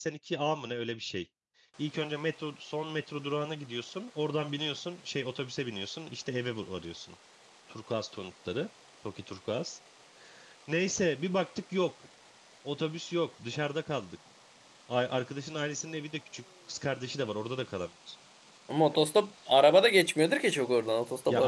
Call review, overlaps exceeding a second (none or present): none